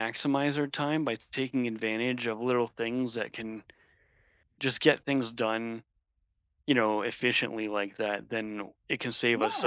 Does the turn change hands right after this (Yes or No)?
No